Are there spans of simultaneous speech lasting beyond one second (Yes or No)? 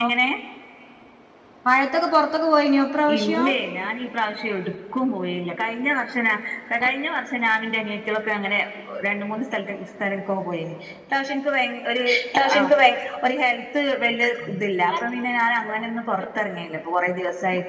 No